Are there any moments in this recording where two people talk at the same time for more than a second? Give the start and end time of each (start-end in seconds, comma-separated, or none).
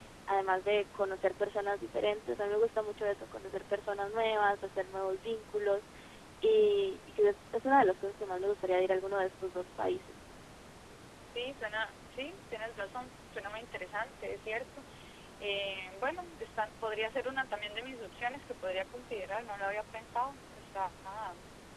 none